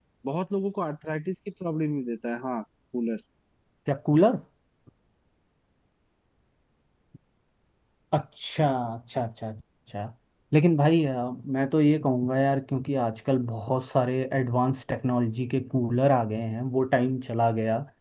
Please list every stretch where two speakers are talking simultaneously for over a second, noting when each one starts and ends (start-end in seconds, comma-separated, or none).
none